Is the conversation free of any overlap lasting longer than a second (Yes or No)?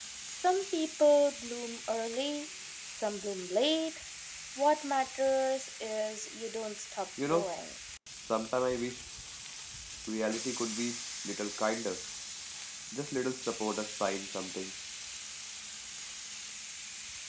Yes